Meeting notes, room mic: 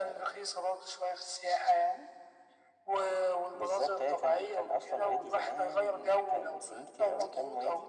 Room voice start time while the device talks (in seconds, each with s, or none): none